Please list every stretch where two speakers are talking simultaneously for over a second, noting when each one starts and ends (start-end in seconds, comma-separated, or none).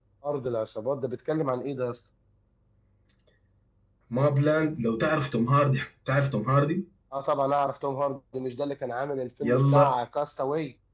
none